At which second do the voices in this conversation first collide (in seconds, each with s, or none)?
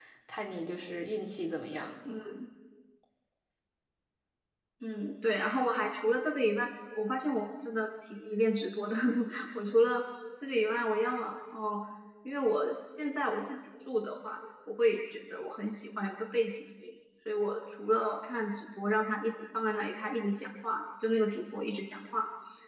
none